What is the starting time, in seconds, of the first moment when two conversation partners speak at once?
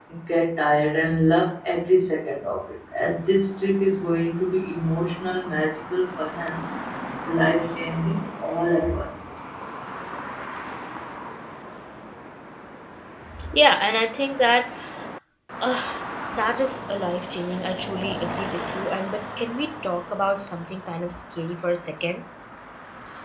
none

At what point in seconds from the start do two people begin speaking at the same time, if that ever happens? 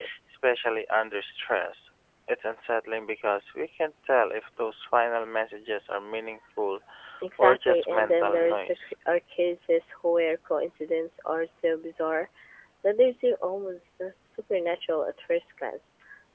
7.4 s

